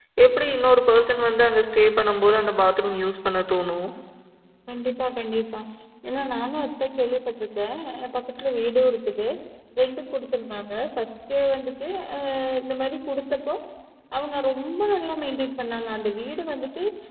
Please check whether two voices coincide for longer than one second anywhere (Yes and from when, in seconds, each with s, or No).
No